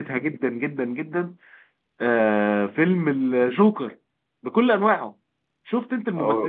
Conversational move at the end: listening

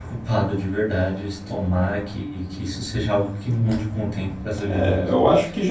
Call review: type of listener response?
taking over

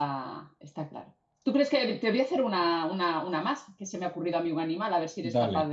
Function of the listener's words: listening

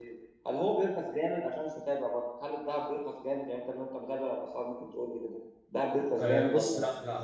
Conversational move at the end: taking over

